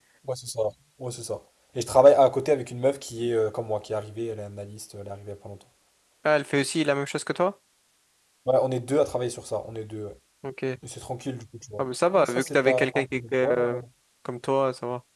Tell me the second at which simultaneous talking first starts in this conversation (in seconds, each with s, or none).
11.8 s